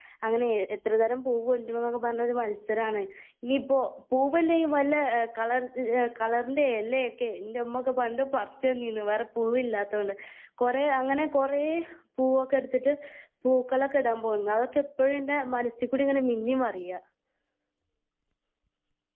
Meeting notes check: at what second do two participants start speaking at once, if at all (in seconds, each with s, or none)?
none